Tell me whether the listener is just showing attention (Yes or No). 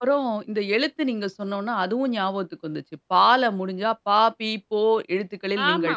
No